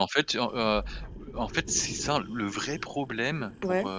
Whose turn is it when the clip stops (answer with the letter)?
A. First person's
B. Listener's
A